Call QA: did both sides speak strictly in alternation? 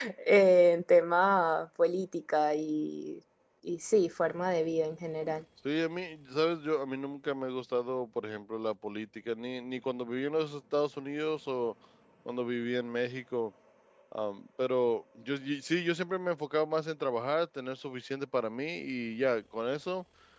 Yes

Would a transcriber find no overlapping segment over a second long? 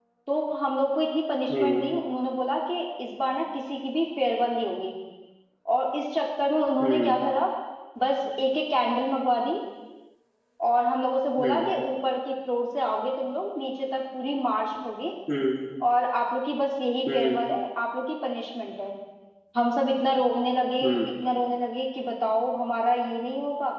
Yes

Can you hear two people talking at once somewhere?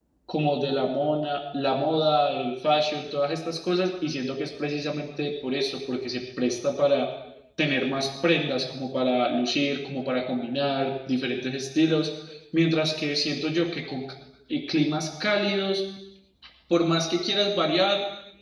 No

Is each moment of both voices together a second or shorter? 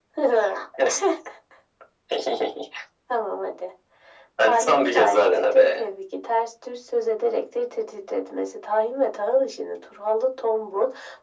No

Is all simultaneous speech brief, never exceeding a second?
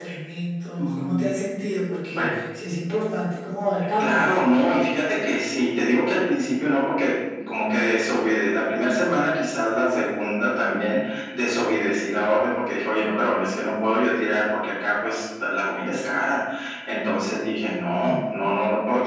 Yes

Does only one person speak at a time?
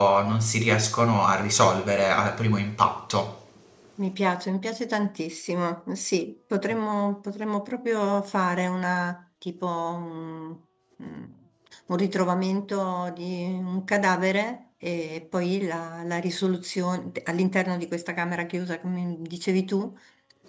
Yes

